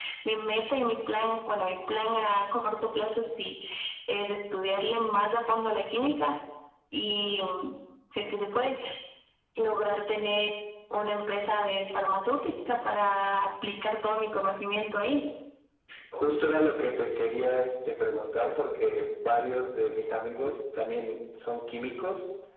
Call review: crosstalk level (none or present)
none